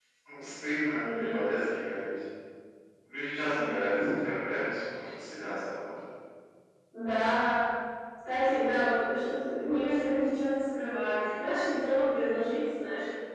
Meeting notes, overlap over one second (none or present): none